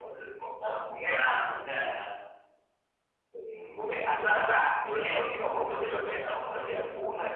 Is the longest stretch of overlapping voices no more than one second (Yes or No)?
Yes